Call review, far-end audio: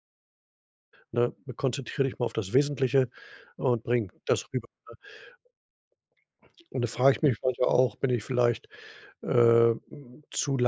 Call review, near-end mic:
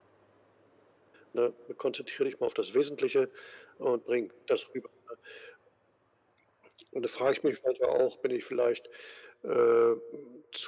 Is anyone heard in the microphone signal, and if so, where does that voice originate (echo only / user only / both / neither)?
echo only